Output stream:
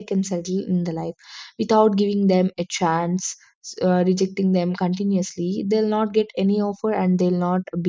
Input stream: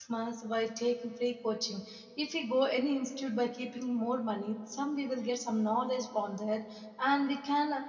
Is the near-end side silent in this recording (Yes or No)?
No